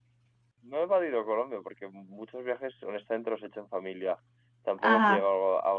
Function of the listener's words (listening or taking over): listening